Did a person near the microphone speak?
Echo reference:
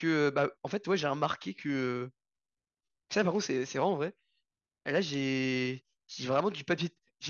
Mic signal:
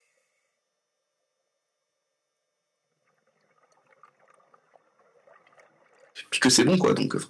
Yes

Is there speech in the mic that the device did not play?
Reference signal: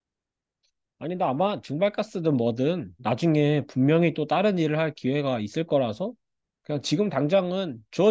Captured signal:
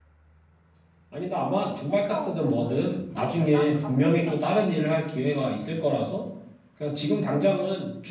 Yes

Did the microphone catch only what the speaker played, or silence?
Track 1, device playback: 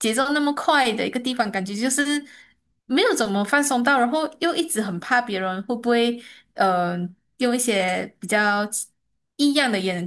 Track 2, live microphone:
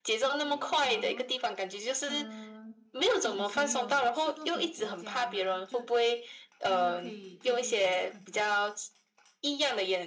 No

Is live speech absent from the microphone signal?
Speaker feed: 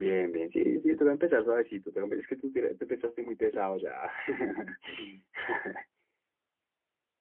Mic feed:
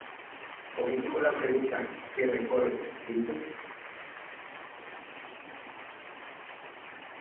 No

